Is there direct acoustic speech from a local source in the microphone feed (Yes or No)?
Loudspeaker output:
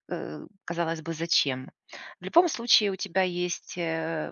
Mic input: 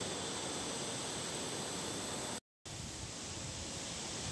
No